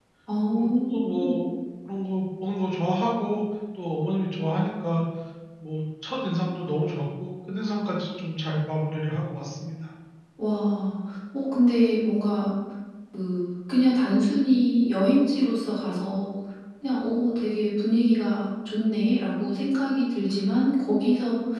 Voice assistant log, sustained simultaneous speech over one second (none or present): none